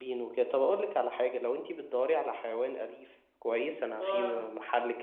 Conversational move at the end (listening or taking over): listening